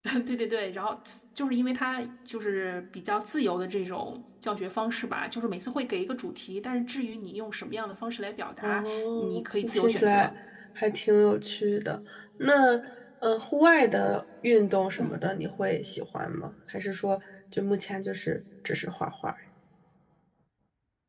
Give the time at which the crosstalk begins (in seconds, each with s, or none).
8.6 s